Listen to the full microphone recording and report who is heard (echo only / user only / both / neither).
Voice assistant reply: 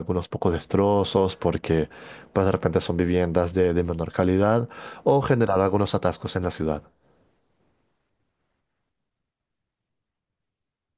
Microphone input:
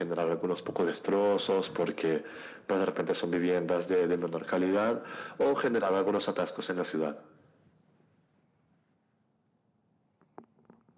echo only